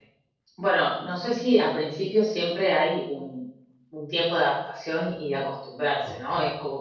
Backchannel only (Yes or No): Yes